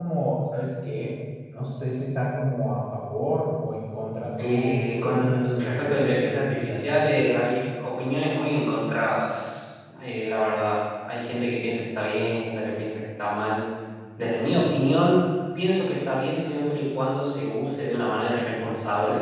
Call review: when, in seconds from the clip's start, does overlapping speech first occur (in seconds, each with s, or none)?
4.4 s